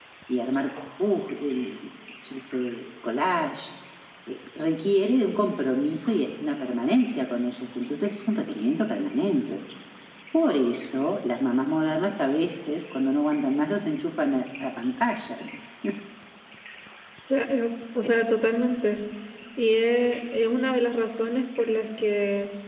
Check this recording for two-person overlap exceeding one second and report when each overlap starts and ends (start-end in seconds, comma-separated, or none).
none